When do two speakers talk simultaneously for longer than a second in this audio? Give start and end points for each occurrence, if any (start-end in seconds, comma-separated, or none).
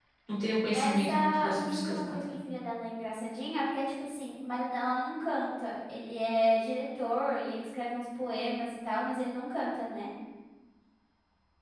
0.7-2.2